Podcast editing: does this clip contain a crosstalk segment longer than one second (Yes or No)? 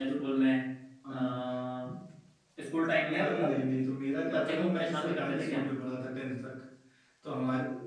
Yes